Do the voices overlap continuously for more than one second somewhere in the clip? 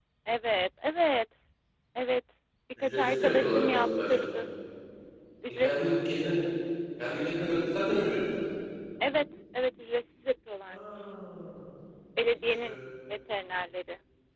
Yes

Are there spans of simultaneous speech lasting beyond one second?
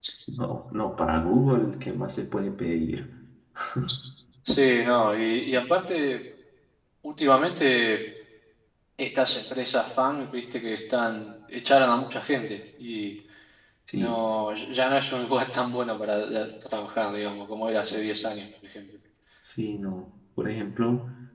No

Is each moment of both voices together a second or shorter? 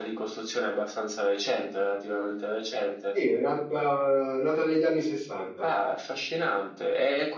Yes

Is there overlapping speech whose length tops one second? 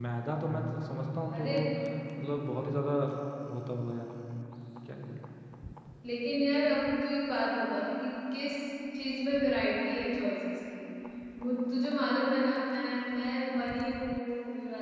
No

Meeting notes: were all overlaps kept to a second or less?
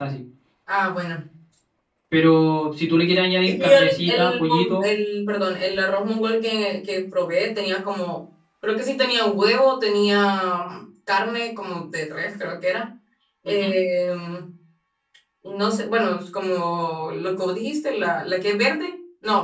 No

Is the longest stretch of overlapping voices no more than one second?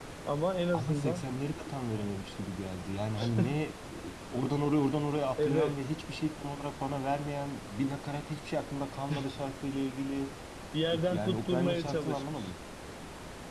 No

